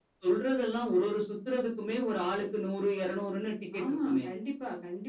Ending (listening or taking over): taking over